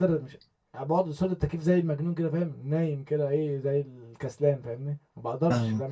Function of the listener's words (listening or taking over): taking over